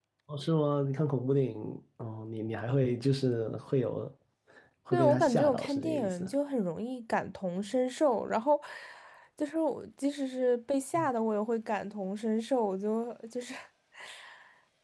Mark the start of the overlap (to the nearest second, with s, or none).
5 s